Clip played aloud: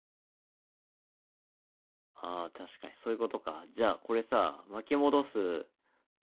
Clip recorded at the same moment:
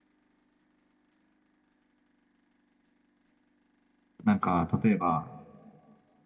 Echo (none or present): none